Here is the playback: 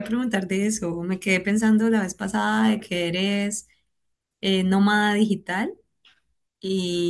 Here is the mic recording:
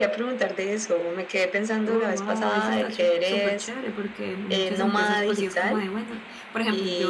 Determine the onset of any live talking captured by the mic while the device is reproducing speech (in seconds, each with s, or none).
1.8 s